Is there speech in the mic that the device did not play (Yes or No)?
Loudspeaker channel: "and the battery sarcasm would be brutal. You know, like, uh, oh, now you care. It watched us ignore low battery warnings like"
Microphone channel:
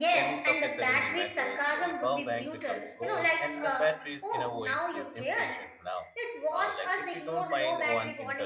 Yes